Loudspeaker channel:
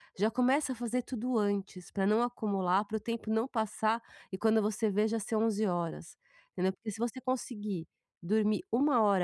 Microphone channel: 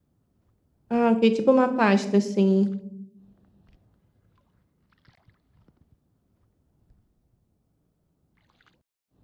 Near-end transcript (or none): Ah, ok. Tipo uma pasta, assim.